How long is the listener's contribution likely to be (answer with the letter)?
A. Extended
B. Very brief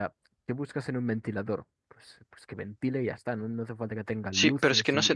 A